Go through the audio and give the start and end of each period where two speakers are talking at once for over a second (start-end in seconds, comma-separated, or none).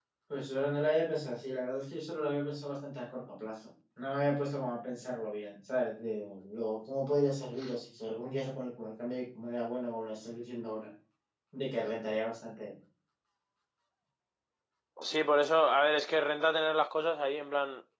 none